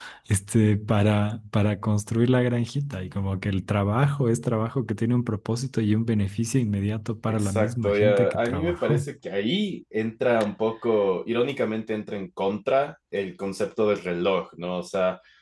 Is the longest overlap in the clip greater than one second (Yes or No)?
Yes